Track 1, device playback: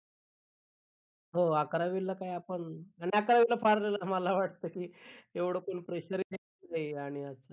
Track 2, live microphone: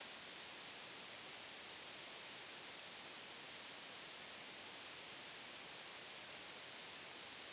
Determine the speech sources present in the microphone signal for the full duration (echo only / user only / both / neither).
neither